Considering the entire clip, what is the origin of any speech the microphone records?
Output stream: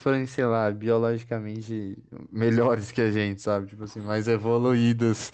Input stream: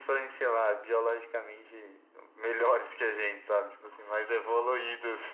echo only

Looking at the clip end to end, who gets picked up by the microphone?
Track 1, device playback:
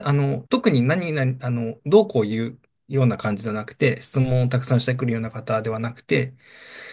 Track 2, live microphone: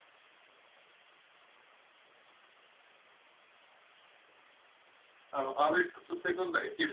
user only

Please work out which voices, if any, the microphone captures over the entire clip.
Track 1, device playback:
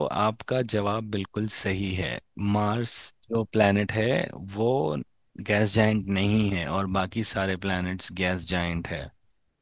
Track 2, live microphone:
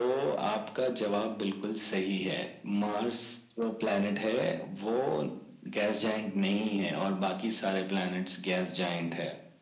echo only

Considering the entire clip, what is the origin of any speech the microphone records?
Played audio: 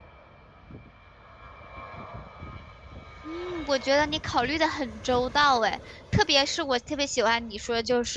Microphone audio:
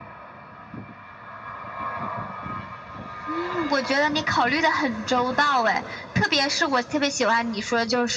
echo only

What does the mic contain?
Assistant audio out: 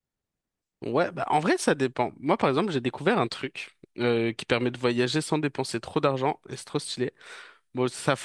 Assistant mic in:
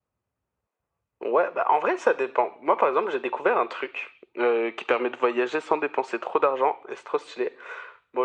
echo only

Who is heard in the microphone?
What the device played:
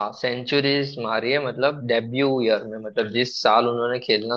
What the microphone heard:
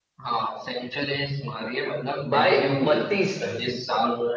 both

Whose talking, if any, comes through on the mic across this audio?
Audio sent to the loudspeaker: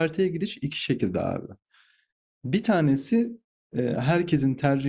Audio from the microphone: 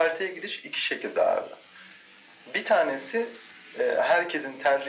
echo only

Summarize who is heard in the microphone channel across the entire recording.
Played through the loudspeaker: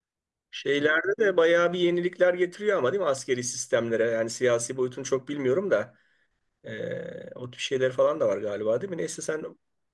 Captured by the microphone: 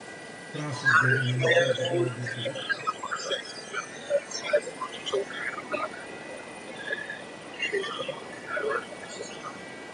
both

